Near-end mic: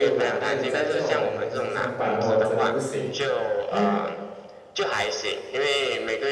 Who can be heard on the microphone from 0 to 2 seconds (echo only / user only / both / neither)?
both